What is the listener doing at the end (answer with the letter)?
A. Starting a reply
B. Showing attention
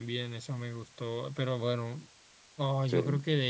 B